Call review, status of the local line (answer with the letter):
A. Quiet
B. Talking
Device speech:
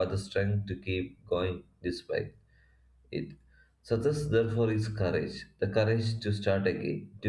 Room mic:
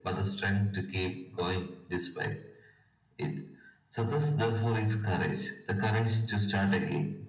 A